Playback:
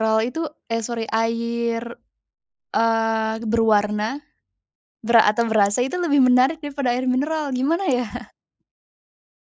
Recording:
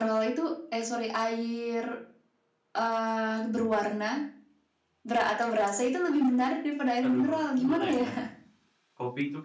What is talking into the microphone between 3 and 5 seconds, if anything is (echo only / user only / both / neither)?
echo only